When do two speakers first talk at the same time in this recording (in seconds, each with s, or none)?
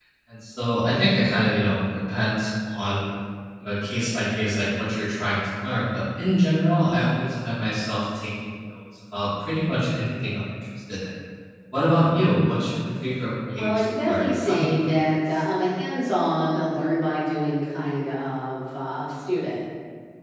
13.6 s